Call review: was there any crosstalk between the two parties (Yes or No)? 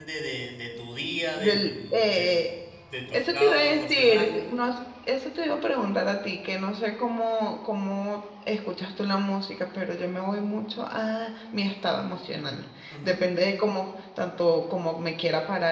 Yes